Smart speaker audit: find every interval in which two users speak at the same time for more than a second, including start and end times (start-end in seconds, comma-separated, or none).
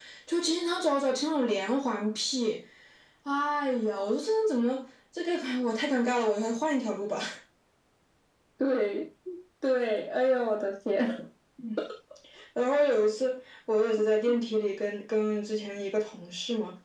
none